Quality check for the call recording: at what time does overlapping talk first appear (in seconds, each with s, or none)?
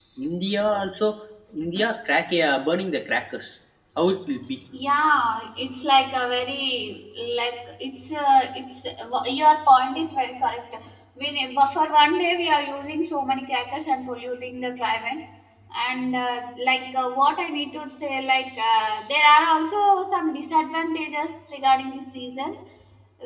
none